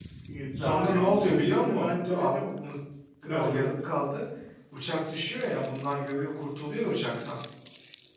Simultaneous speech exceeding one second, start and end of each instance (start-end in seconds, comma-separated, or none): 0.6-2.5